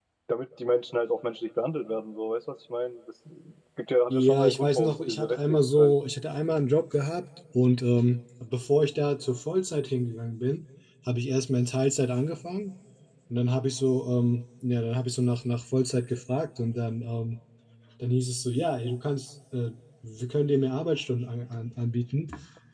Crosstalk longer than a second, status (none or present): present